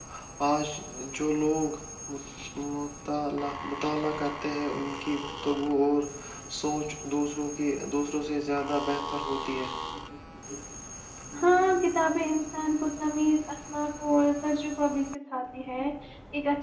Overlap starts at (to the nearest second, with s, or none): none